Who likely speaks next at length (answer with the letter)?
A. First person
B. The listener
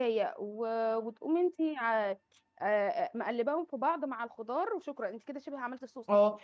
B